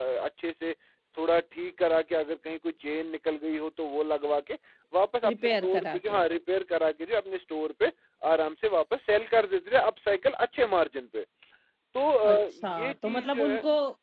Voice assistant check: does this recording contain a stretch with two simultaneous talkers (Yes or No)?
Yes